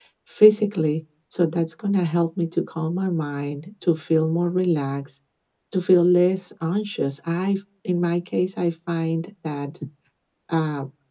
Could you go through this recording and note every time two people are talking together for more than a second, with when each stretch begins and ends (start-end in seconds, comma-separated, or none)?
none